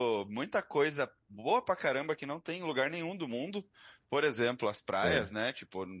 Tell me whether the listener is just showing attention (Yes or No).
Yes